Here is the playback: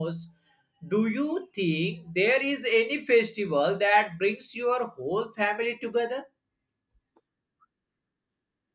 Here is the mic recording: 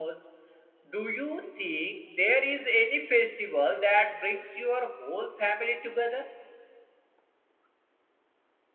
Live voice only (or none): none